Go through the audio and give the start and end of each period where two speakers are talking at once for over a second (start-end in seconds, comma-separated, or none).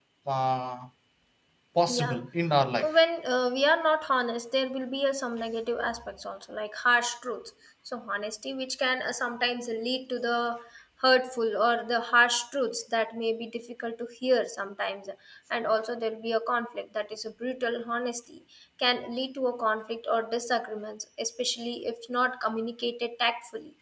none